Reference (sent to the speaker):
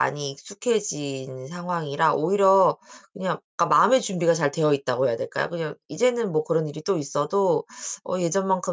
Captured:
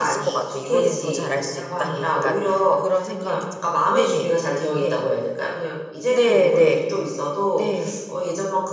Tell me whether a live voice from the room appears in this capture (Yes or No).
Yes